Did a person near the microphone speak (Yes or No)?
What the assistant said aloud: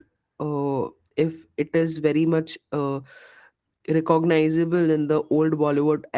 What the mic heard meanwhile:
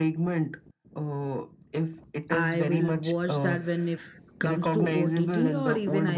Yes